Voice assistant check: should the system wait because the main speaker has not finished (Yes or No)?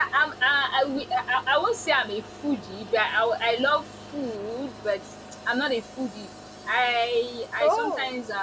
Yes